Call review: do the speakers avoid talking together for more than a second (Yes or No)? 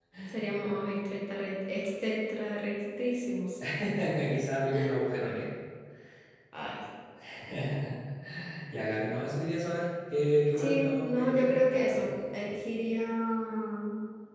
No